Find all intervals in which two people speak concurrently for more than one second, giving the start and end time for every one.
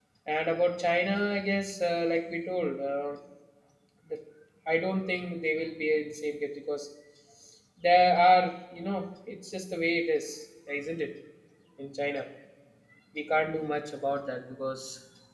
none

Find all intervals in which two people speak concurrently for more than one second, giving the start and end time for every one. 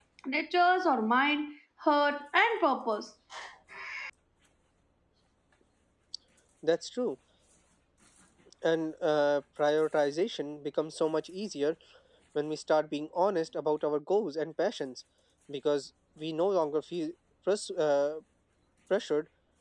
none

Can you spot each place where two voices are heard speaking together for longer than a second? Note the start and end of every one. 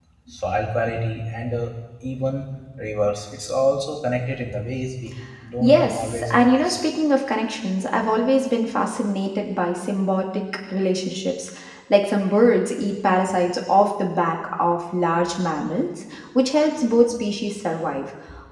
5.6-6.8

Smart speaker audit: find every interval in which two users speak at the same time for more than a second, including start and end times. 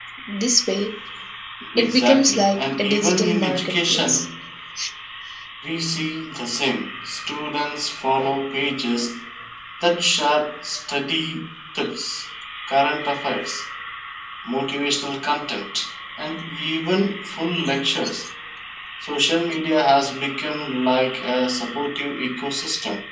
1.8-4.2

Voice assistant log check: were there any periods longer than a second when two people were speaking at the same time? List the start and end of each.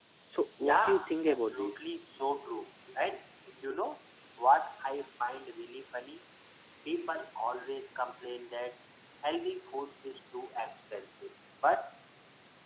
0.6-1.9

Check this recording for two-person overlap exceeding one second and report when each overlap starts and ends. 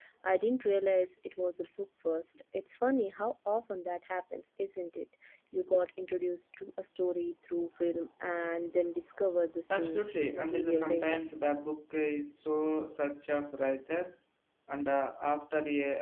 9.7-11.2

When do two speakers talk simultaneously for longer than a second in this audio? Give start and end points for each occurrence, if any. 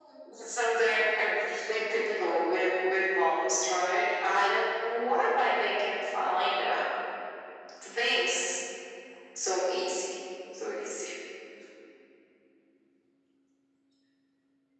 none

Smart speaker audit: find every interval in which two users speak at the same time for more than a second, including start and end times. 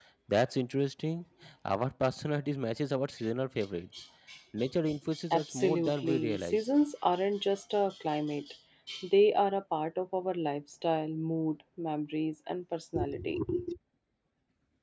5.3-6.7

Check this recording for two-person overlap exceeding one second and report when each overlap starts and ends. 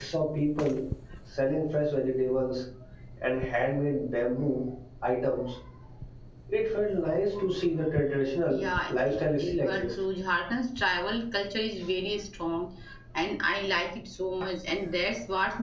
8.5-9.8

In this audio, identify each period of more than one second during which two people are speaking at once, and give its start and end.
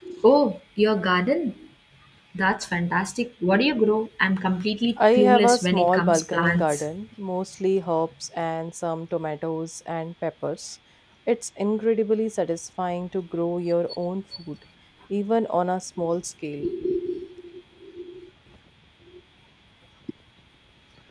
5.1-6.8

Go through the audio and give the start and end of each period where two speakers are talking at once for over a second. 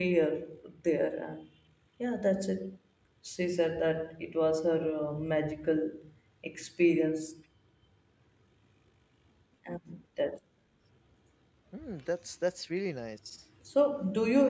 none

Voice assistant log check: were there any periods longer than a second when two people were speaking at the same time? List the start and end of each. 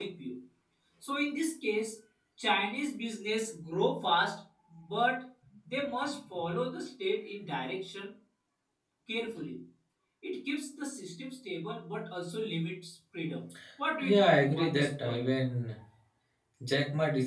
14.0-15.2

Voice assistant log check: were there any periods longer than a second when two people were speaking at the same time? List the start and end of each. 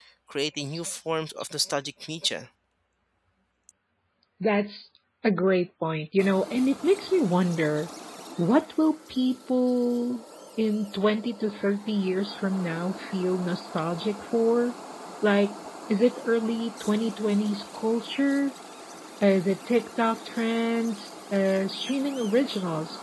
none

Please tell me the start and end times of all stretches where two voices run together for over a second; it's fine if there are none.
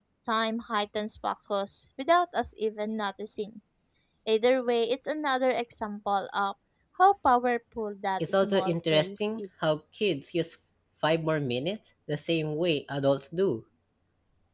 8.2-9.8

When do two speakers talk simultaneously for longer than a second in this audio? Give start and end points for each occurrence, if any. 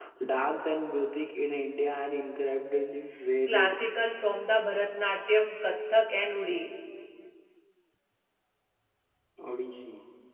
none

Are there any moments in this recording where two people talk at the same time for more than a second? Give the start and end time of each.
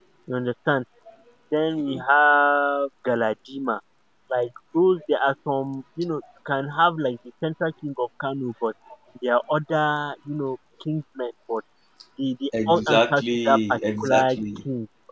12.7-14.4

